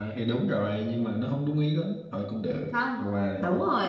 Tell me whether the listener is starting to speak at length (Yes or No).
Yes